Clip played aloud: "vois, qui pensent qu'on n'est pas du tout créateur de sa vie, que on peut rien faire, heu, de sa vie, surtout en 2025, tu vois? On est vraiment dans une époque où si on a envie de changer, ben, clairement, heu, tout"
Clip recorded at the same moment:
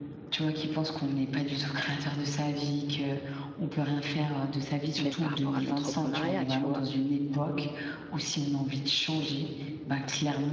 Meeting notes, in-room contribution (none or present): present